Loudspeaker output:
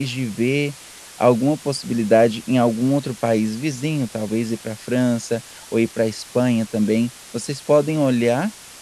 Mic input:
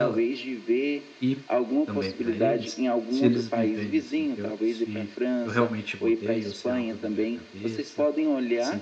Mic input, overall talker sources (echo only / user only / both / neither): both